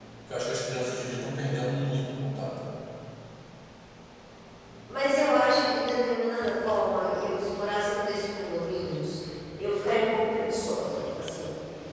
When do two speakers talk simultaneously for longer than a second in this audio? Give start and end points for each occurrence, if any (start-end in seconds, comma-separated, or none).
none